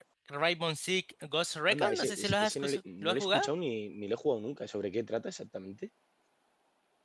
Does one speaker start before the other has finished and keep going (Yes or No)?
Yes